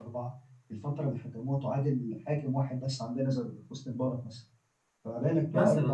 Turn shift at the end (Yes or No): No